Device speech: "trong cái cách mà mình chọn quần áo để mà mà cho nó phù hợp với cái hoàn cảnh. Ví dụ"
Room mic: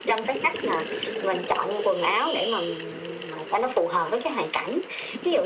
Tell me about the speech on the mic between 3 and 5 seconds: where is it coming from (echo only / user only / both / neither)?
echo only